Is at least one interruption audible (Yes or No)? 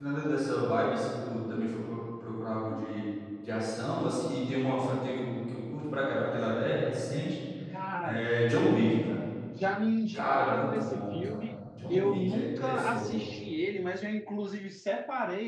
Yes